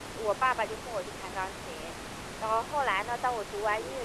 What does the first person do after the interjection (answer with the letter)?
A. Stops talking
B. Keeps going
B